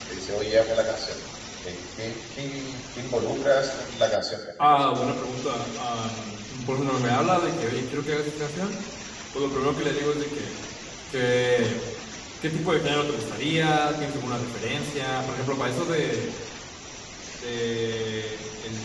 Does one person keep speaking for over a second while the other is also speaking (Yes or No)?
No